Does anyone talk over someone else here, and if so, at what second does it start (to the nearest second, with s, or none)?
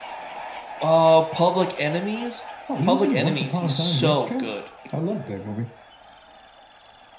3 s